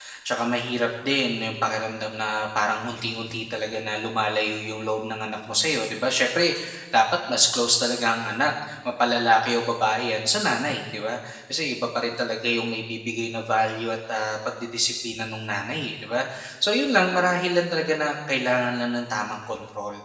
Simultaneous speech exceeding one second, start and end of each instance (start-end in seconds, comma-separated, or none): none